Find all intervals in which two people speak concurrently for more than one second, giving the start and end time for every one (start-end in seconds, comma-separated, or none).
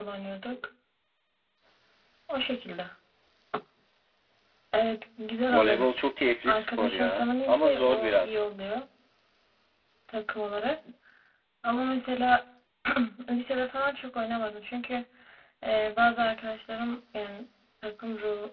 6.5-8.4